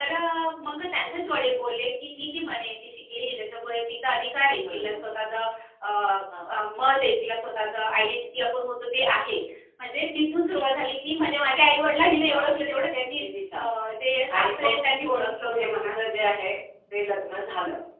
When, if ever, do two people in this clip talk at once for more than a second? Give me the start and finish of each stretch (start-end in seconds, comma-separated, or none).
14.3-15.9